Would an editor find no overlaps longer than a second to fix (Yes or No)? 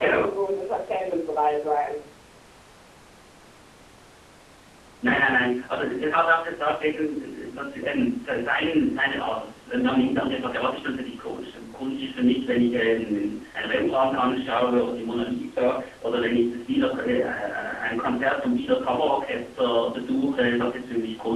Yes